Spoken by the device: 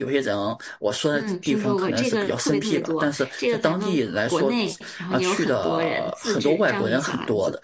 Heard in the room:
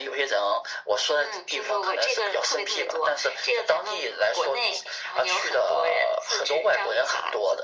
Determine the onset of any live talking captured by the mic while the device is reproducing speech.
none

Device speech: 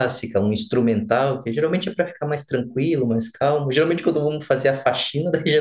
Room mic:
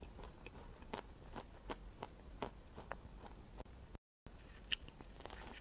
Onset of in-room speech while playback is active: none

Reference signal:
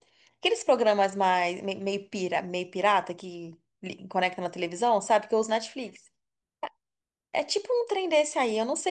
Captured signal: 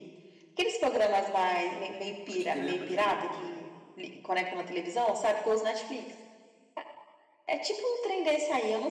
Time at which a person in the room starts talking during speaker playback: 2 s

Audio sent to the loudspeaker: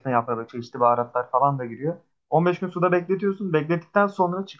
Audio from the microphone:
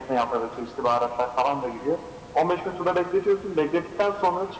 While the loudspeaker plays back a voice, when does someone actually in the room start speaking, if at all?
none

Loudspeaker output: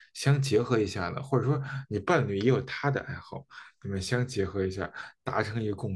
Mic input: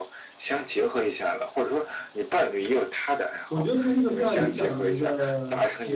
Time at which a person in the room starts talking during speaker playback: 3 s

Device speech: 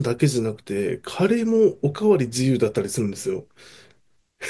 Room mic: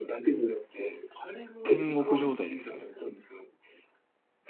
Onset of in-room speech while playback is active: 2 s

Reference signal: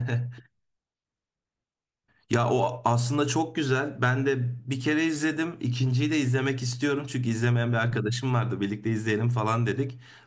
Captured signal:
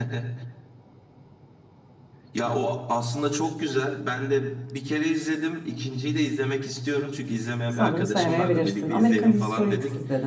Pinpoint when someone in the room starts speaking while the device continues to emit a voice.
8 s

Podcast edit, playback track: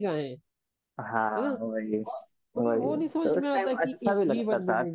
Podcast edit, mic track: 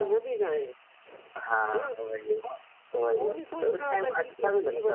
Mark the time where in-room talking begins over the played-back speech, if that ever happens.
none

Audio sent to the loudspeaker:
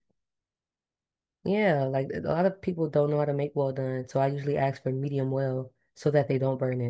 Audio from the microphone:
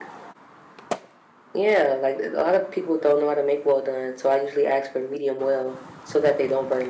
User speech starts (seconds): none

